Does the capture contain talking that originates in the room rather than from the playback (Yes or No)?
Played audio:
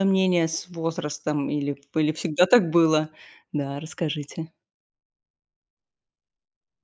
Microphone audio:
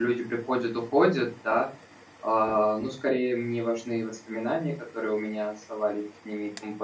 Yes